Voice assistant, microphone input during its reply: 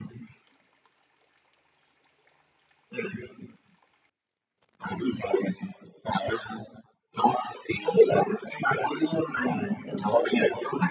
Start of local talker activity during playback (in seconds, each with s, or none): 9.4 s